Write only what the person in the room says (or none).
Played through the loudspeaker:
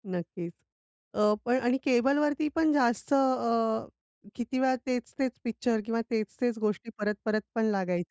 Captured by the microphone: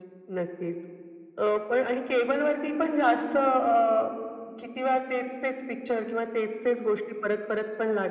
none